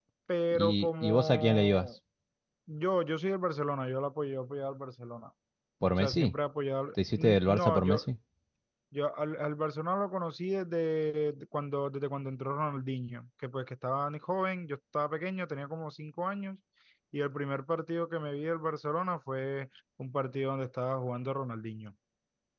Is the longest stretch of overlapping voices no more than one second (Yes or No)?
No